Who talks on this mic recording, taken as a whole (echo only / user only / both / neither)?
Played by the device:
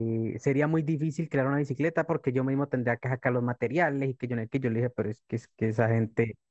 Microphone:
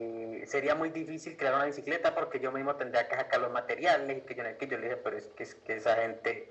echo only